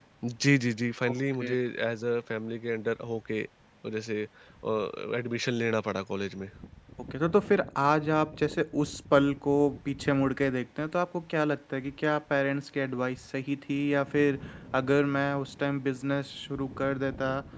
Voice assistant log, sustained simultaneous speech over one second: none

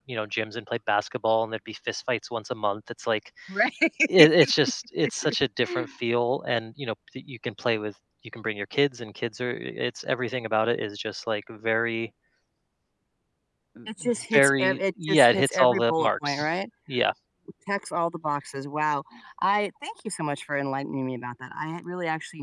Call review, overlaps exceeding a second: present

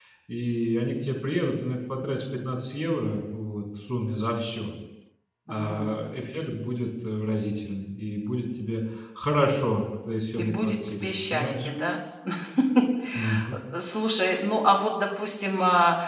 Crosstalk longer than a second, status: present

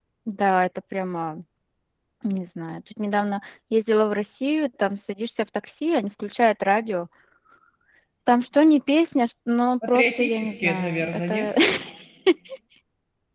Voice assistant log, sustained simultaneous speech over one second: present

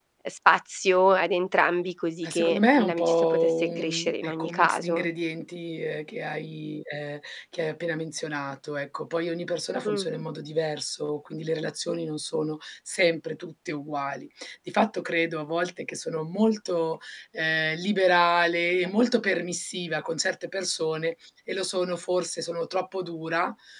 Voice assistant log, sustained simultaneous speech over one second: present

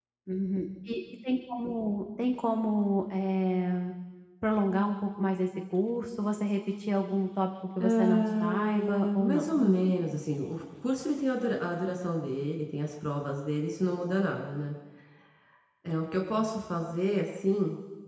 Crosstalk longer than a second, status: present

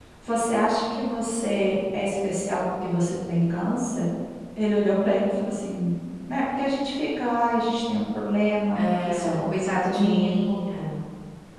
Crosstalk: present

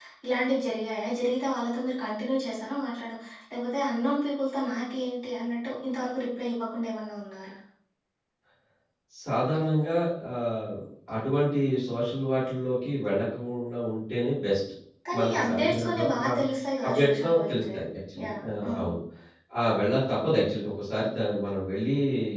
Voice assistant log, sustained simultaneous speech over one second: present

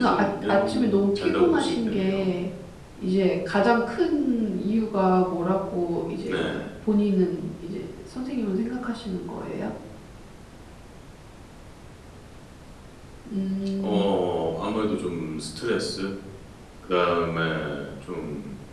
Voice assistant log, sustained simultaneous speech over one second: present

